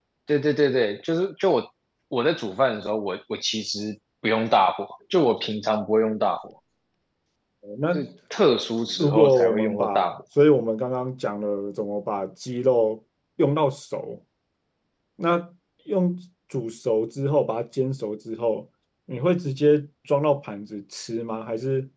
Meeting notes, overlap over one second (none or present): present